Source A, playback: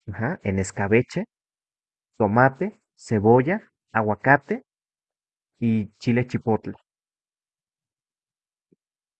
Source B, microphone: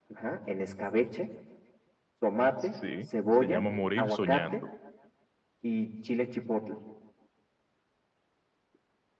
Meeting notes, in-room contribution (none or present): present